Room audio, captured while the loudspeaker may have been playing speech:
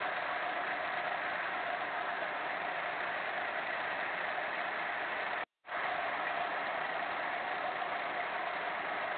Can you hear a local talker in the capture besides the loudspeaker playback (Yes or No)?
No